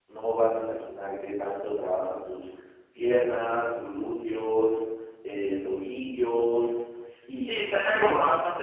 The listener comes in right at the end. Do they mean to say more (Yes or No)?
Yes